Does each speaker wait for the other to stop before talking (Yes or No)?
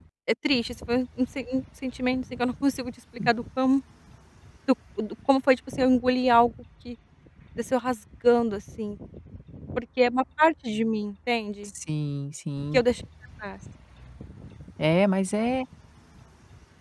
Yes